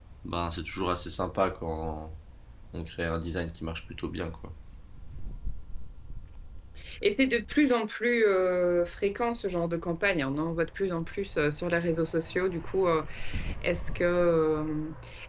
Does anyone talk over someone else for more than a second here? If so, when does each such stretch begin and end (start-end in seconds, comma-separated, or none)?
none